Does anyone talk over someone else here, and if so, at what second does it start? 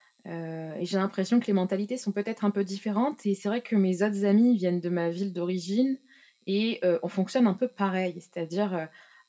none

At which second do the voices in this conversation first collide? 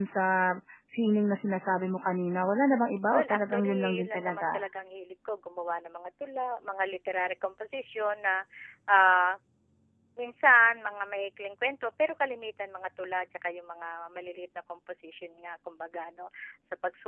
3.1 s

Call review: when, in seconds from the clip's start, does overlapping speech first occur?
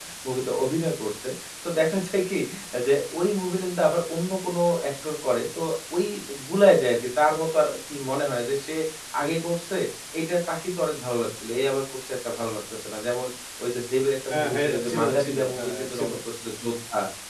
14.3 s

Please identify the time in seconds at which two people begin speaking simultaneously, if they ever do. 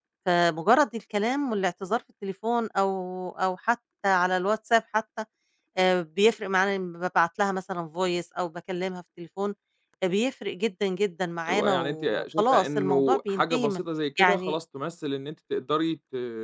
11.5 s

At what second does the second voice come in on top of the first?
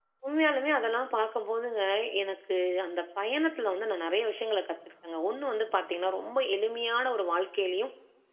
none

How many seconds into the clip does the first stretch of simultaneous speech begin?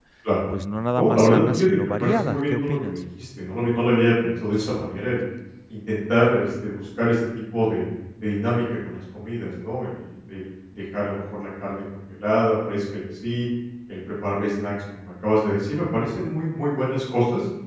1.0 s

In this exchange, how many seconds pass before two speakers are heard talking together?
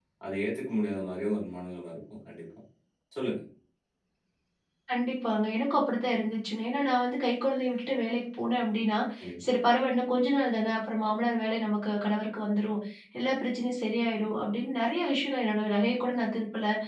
none

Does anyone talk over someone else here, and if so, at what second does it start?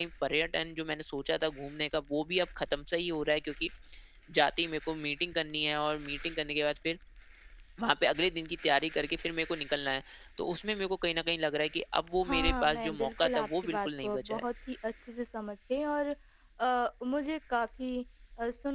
12.2 s

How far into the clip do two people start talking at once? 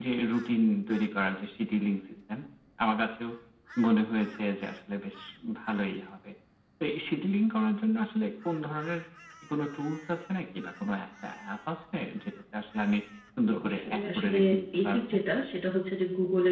13.6 s

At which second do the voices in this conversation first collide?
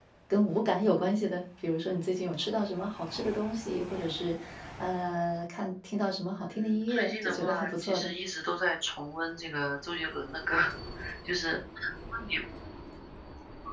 6.4 s

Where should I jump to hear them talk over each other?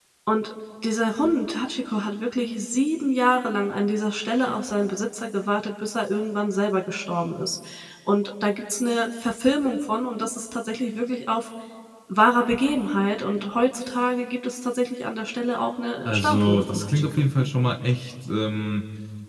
16.0 s

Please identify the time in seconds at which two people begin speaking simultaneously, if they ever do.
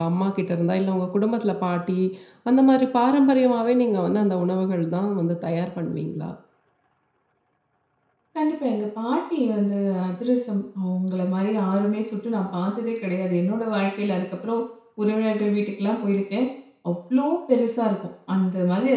none

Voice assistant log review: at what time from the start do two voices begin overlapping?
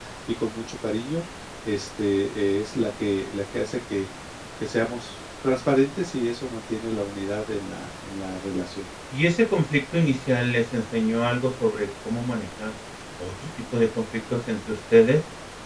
none

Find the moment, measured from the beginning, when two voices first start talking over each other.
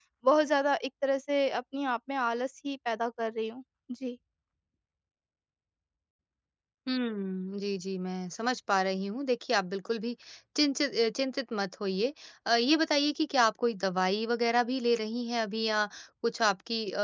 none

